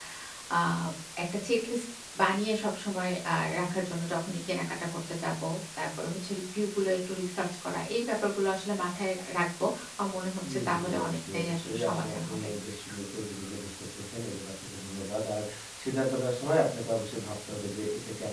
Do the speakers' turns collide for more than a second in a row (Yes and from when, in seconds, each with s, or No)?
Yes, from 10.4 s